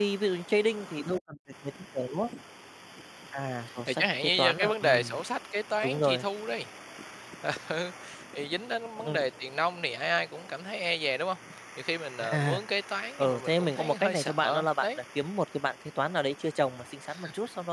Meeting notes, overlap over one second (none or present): present